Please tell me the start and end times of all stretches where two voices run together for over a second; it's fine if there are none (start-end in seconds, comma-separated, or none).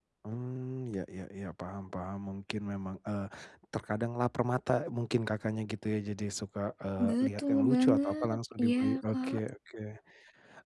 7.0-9.4